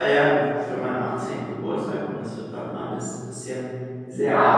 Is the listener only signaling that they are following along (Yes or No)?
No